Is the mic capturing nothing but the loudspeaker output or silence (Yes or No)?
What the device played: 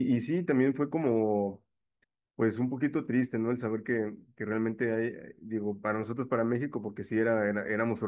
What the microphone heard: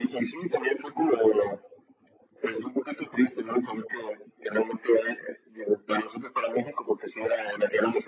Yes